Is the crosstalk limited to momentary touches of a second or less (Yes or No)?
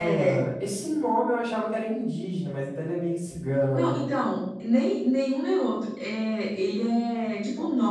Yes